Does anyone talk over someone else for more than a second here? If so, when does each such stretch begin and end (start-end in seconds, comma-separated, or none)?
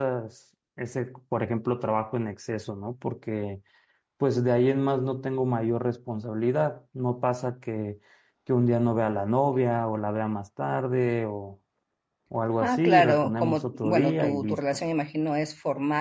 12.6-14.6